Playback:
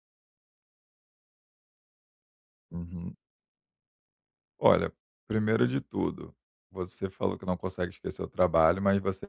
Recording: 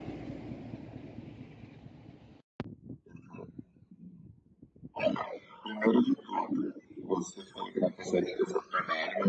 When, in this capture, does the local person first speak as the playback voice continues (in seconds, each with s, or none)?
none